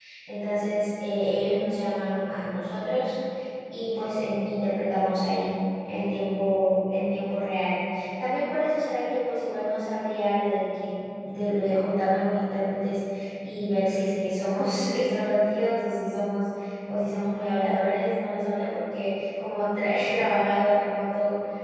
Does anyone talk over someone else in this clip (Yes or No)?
No